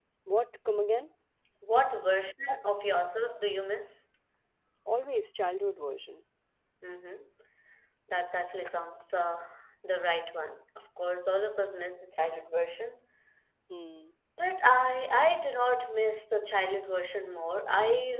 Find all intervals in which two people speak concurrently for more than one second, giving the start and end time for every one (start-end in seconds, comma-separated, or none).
none